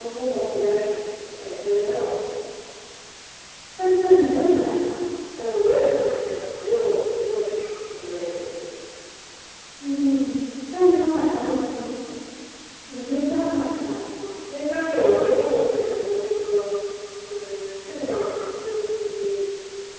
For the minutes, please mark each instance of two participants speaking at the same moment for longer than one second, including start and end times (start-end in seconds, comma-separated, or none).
none